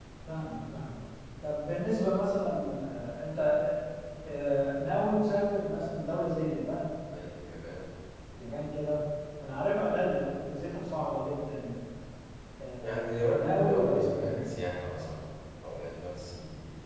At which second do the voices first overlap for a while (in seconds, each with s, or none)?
12.8 s